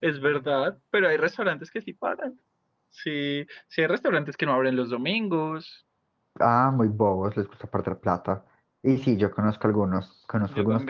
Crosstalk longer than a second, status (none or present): none